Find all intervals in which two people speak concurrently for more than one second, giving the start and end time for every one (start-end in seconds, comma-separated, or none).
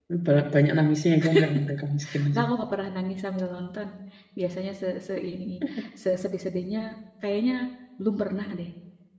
none